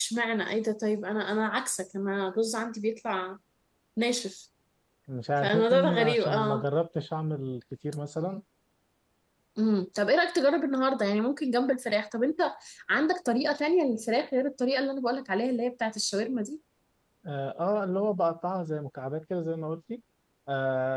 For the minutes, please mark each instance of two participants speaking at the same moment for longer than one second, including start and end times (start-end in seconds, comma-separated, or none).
5.4-6.6